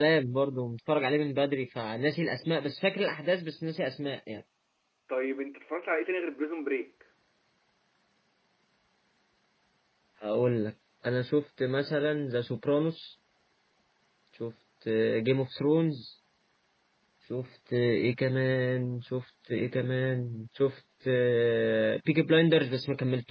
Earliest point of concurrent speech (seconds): none

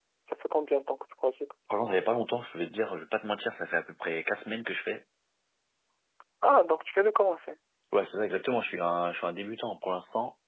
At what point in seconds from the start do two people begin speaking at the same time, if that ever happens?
none

